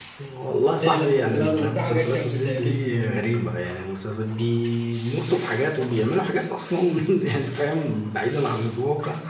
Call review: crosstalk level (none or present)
present